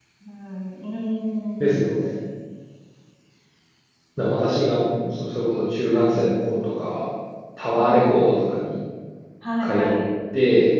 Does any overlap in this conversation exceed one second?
No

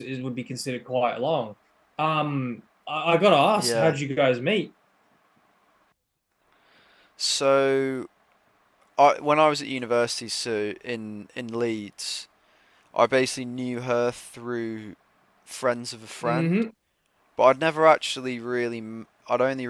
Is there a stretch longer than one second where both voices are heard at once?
No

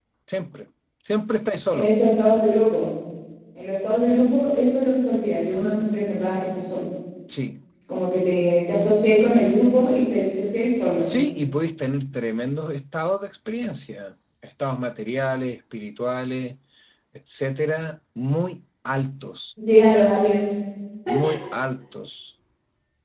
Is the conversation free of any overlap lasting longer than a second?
Yes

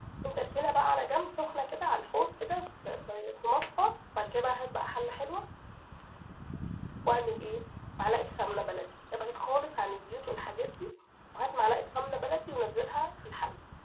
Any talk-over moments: No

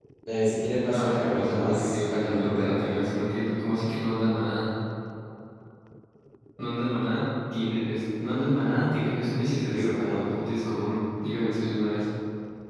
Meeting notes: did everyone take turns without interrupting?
No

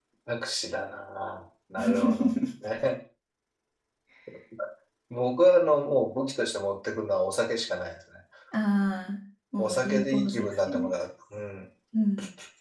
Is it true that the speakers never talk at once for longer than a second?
No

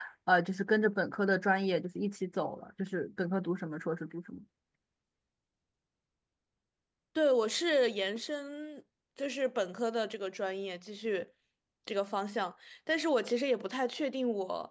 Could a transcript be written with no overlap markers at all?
Yes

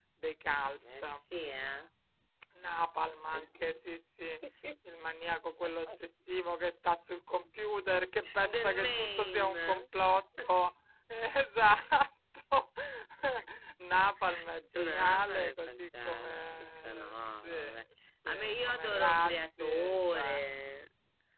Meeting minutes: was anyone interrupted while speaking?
Yes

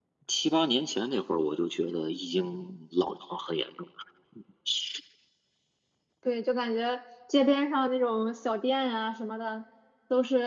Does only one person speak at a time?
Yes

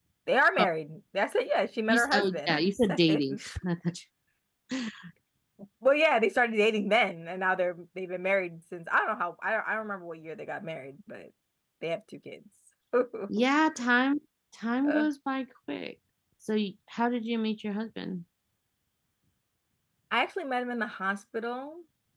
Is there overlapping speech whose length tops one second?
Yes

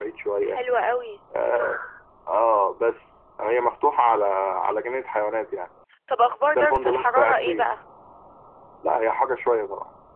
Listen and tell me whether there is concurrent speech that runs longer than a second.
Yes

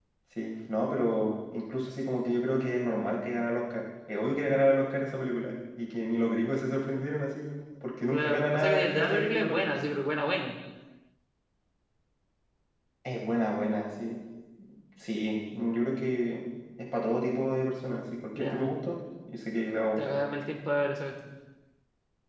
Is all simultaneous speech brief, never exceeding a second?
No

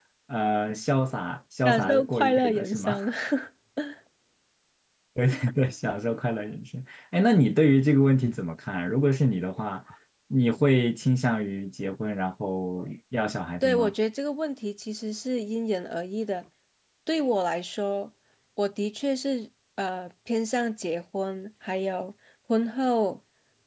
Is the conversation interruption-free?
No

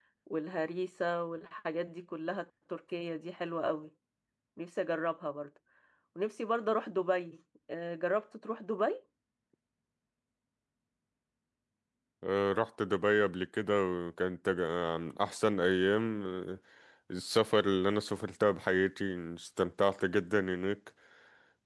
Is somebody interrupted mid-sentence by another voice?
No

